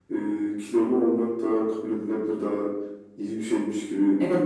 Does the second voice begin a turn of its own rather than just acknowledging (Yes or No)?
Yes